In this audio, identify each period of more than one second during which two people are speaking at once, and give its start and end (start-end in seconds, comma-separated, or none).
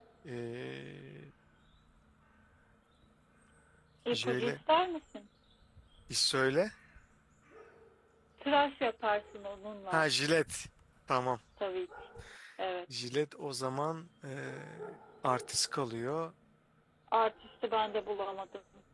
none